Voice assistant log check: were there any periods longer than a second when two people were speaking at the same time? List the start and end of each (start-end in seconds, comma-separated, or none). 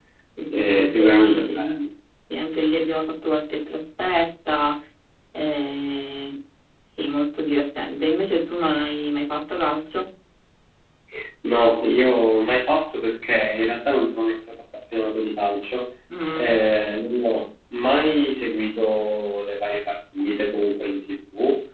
0.6-1.8